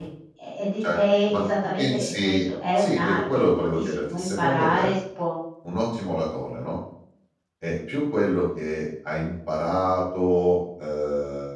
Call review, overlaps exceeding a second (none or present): present